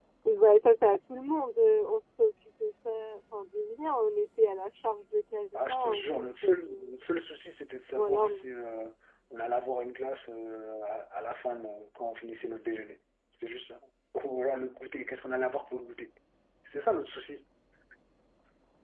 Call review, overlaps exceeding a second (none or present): present